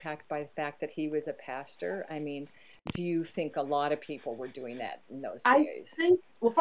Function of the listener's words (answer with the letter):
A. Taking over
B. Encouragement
A